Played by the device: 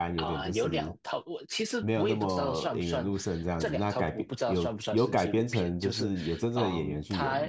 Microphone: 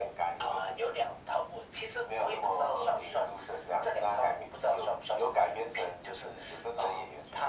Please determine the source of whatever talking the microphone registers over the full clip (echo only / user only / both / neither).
echo only